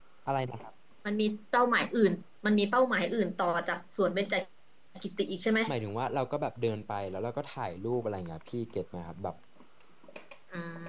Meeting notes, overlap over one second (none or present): none